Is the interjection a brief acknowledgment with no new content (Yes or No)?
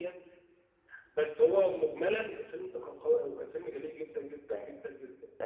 No